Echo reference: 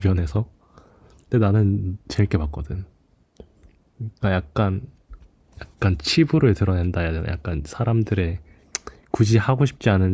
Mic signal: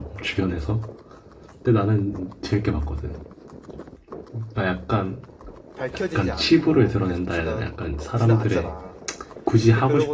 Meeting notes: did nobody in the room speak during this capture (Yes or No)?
No